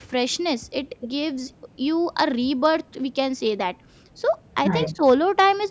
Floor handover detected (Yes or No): No